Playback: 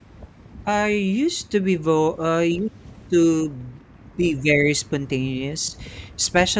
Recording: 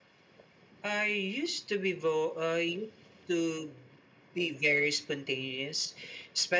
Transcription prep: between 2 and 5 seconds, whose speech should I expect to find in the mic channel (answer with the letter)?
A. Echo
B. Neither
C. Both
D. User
A